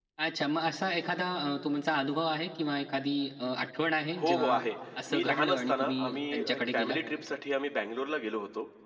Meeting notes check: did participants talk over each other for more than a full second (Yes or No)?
Yes